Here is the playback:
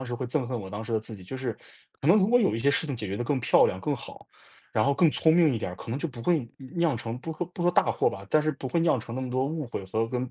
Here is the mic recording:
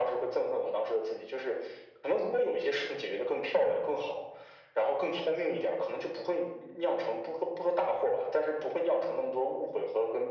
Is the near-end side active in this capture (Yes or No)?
No